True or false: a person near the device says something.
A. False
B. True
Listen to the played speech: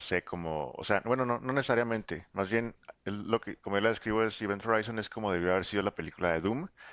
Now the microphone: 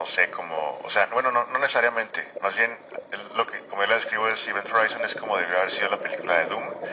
A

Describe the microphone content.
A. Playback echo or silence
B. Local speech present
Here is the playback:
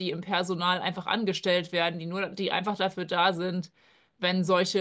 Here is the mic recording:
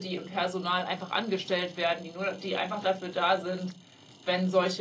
A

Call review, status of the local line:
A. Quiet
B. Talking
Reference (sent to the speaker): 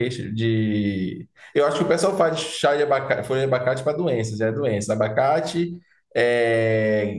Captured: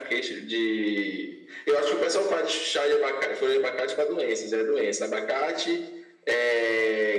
A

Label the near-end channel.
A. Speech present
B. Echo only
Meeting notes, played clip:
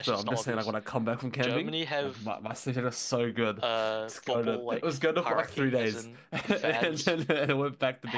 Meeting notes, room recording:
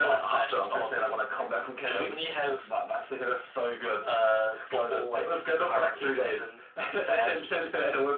B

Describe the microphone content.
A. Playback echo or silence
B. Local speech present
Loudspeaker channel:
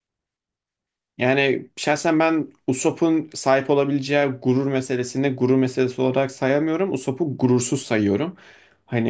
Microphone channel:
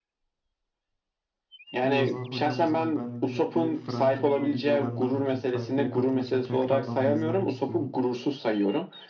B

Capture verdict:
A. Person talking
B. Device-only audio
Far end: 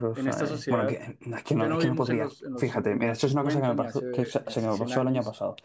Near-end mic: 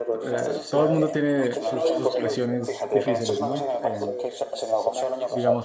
A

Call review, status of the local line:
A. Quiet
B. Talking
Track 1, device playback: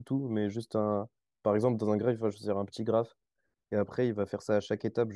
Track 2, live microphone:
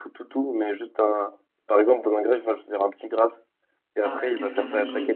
B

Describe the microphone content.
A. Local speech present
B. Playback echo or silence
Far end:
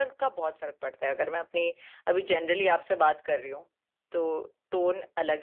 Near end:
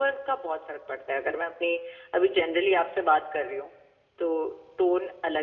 B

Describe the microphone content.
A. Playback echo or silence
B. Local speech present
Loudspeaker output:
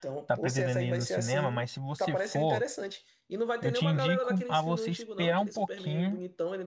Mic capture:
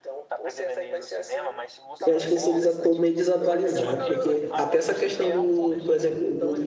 B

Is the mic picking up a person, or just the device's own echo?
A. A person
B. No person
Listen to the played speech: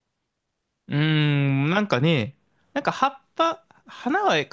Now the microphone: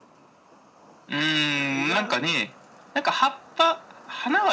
A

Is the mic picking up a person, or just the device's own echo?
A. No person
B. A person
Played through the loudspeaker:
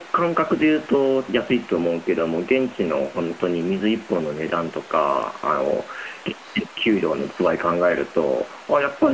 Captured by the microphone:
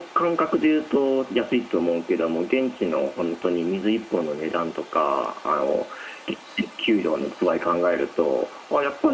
A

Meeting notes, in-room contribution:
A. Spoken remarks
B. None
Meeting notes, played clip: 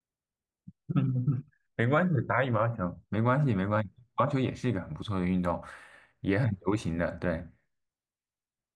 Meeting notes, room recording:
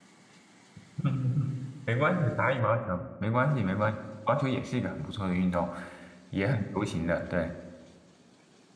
B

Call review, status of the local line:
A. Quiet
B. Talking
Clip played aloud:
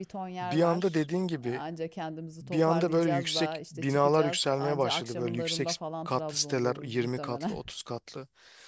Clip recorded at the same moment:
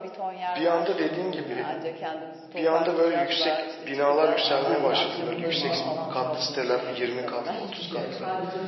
B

